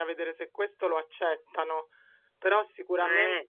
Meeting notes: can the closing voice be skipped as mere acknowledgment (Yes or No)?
Yes